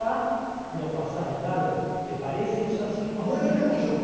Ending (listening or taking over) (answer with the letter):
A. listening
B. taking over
B